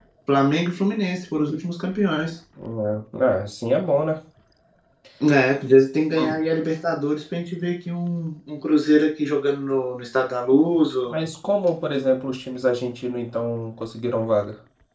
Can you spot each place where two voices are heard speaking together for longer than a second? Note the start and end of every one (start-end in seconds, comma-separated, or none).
none